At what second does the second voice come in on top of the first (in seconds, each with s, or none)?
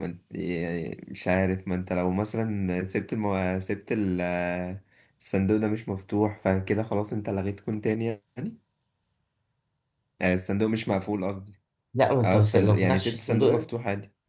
12.2 s